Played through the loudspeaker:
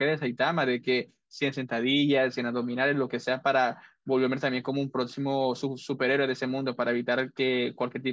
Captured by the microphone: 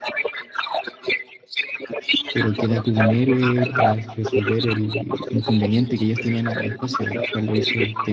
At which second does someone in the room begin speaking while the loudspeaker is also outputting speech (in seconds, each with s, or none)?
2.3 s